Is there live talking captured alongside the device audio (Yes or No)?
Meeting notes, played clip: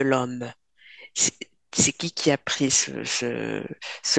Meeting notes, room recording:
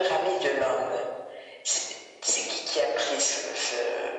No